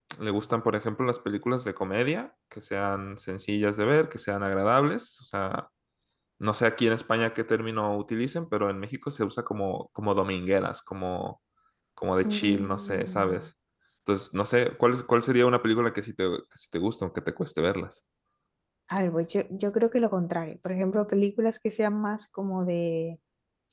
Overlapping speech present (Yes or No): Yes